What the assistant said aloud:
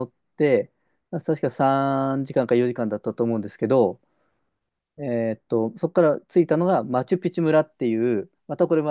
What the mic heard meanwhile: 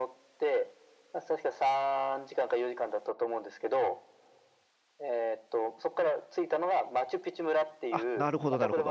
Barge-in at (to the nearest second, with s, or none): 8 s